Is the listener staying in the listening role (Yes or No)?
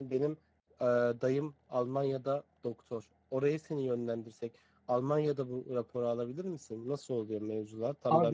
No